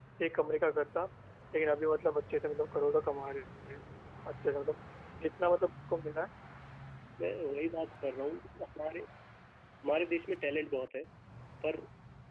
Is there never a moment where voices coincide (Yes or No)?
Yes